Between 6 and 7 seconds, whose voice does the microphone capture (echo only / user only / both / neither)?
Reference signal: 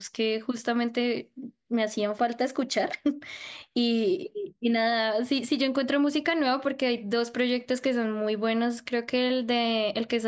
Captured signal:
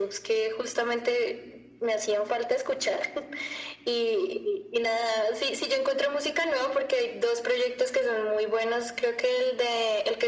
echo only